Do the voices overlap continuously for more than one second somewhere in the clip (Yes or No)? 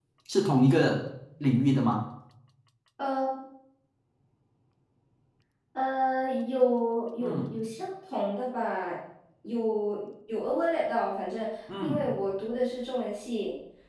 No